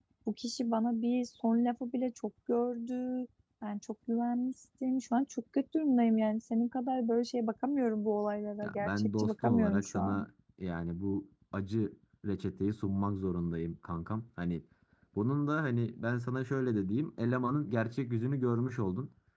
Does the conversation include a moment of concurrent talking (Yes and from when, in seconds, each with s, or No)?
Yes, from 8.6 s